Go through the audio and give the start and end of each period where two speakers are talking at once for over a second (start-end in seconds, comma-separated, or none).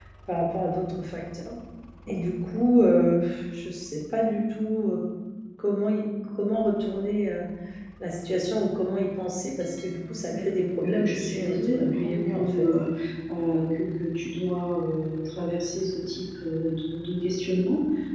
10.3-12.7